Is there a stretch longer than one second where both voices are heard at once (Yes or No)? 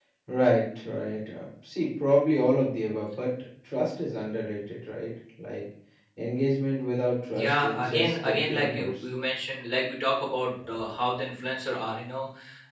Yes